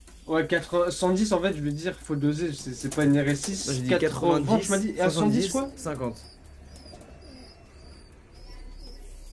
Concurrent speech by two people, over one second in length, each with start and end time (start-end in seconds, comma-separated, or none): 3.6-5.6